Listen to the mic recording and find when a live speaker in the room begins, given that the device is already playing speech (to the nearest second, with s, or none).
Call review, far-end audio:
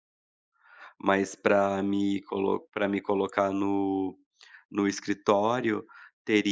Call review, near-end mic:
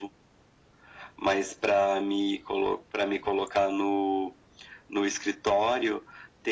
none